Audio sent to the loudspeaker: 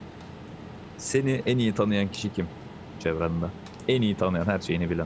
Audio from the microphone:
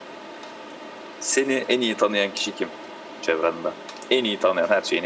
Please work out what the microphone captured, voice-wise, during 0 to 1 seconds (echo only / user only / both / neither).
neither